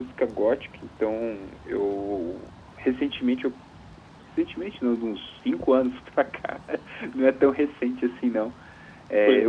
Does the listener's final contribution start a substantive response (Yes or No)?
No